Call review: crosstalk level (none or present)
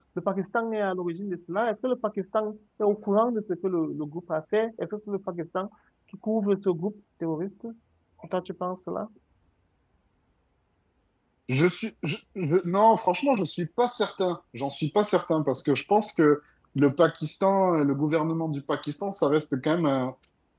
none